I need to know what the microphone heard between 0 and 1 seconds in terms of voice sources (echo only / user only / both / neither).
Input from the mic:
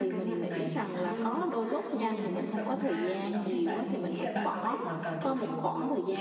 both